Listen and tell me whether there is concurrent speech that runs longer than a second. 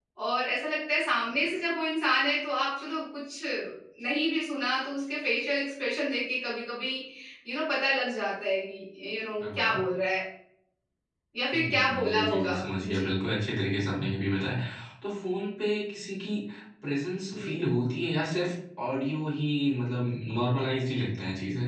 Yes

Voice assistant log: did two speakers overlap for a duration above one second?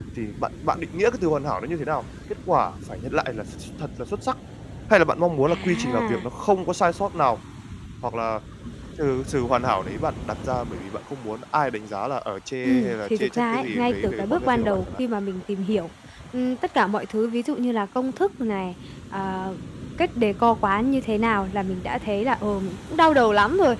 Yes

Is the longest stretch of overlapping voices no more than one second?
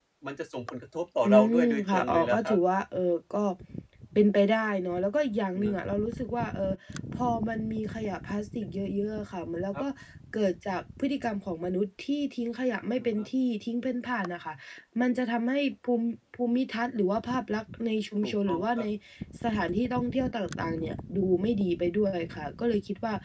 No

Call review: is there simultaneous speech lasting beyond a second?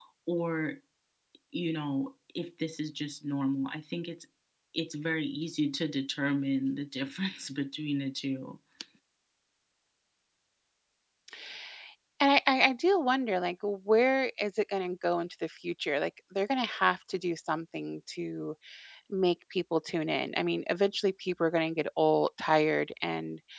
No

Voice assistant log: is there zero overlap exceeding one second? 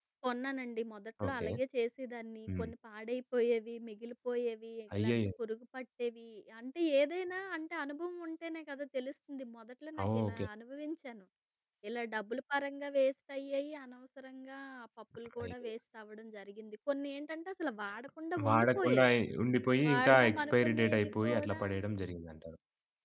No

